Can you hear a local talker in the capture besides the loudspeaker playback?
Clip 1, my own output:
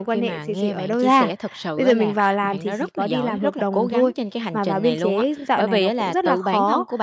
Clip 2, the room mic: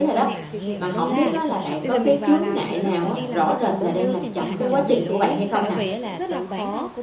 Yes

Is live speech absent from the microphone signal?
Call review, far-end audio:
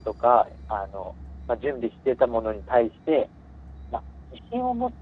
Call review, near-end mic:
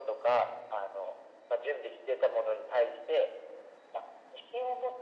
Yes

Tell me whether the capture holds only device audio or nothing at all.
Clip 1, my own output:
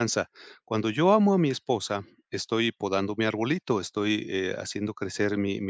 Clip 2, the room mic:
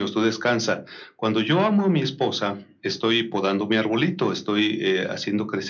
Yes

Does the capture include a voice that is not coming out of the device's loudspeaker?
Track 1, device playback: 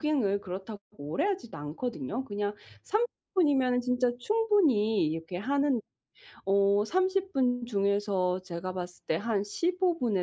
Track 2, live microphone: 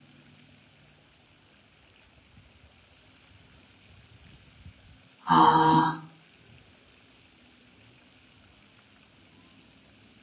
Yes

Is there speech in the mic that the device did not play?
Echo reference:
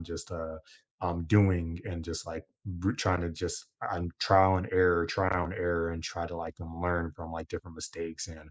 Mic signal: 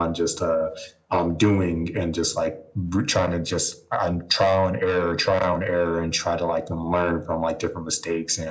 No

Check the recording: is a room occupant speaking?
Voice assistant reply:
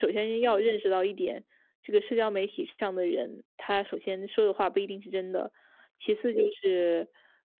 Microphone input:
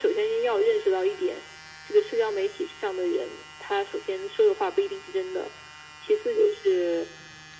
No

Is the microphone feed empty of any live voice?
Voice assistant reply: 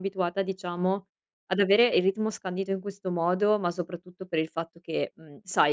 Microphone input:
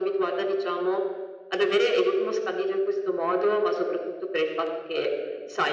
Yes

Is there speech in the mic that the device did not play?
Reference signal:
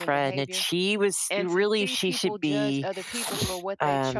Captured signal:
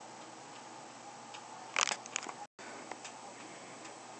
No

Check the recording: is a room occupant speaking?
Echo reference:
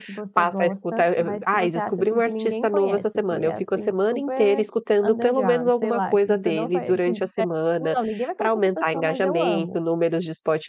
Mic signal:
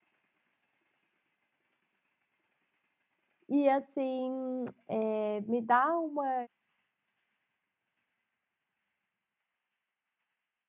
Yes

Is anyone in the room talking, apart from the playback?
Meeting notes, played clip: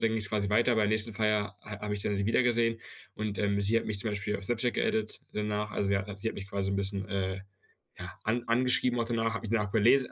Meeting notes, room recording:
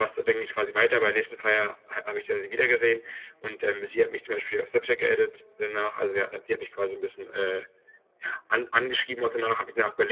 No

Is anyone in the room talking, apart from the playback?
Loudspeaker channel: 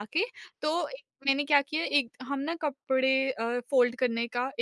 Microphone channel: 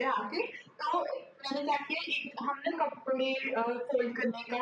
No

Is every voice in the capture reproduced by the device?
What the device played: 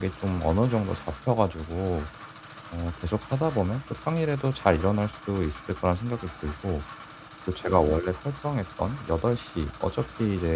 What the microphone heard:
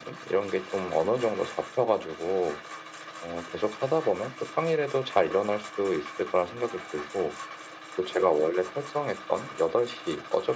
Yes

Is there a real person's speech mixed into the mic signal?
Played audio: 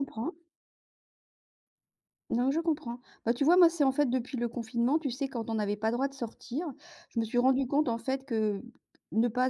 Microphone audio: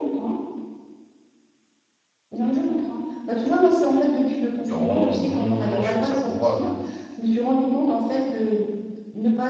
Yes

